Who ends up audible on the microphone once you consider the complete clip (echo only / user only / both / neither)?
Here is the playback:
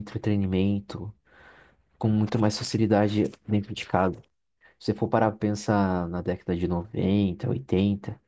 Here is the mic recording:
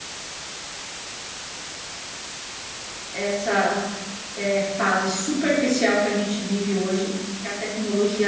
user only